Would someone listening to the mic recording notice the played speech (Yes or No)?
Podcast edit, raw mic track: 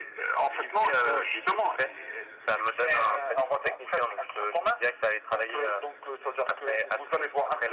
Yes